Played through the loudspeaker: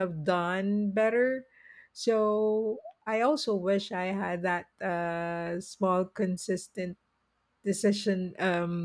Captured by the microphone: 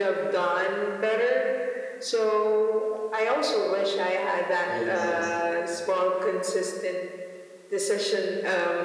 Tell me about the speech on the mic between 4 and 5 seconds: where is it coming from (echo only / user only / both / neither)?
both